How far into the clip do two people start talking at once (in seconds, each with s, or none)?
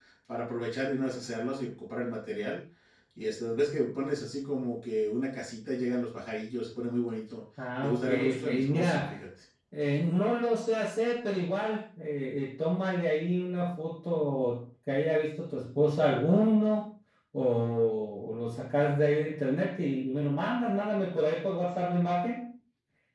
7.8 s